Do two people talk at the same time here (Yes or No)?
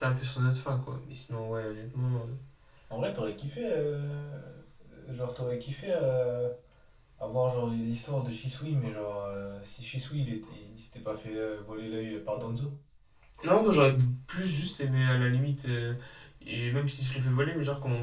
No